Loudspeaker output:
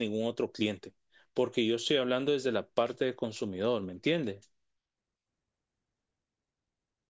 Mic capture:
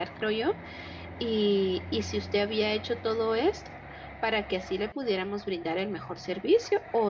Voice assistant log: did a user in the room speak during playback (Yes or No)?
Yes